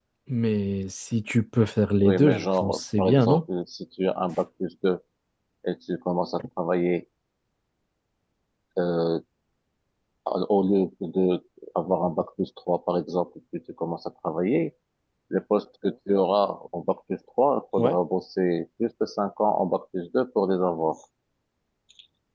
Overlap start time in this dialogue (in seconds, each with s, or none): 2.0 s